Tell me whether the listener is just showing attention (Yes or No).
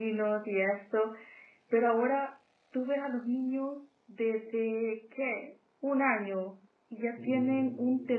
Yes